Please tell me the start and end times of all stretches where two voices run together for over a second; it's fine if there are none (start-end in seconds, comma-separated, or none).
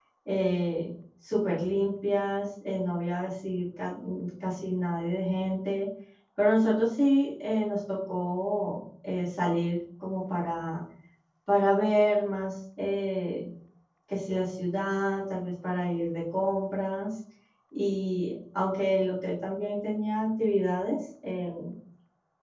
none